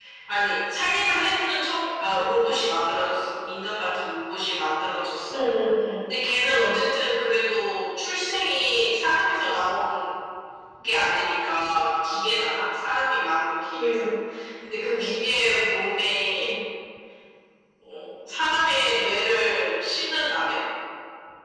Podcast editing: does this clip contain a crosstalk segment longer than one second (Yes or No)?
No